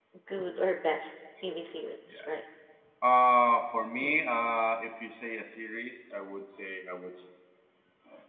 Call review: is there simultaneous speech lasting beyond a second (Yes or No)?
No